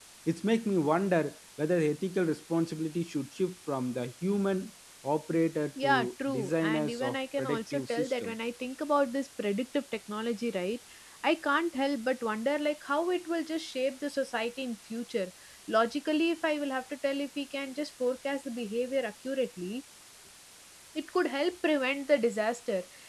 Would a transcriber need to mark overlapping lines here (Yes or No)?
Yes